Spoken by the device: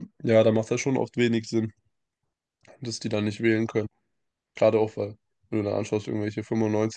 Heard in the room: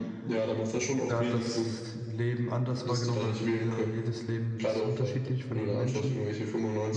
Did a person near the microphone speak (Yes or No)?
Yes